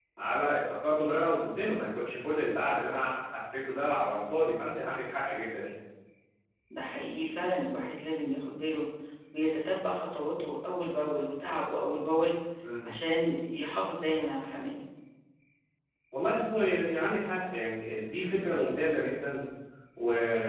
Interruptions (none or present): none